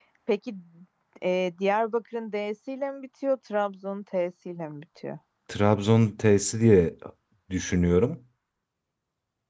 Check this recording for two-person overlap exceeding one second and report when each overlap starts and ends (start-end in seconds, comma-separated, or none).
none